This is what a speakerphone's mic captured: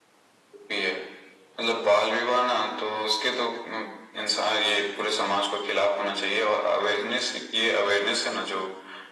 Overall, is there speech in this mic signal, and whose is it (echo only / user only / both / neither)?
echo only